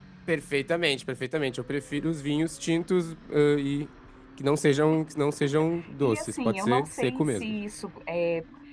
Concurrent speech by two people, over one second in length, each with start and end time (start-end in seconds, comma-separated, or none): 6.0-7.5